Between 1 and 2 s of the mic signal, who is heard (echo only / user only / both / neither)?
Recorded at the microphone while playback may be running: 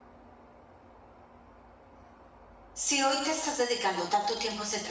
neither